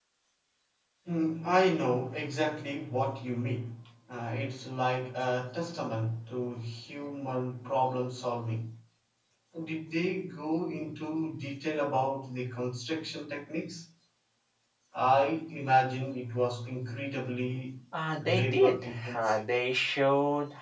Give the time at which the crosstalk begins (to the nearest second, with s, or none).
18 s